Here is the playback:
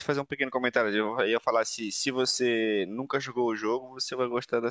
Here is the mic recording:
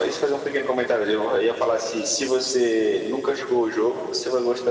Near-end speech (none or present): none